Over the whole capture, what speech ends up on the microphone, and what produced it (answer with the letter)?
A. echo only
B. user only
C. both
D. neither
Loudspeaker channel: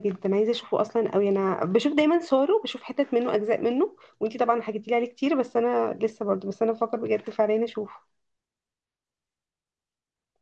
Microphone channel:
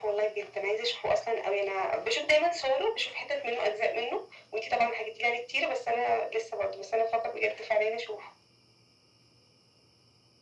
A